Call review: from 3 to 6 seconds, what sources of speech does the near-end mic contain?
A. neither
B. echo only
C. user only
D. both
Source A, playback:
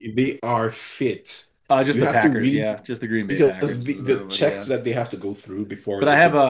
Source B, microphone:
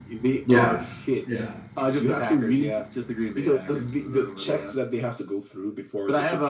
B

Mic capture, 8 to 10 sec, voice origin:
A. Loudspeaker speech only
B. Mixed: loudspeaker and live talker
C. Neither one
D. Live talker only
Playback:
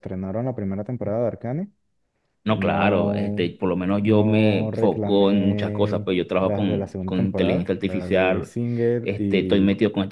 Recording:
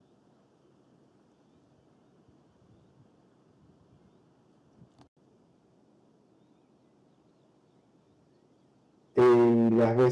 D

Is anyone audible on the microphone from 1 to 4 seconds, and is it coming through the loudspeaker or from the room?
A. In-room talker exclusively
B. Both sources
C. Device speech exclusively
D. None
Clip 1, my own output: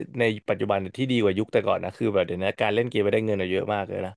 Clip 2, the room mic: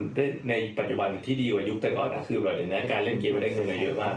B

